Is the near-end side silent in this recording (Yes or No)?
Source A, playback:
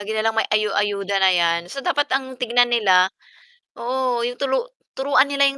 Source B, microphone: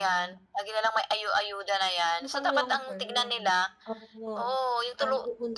No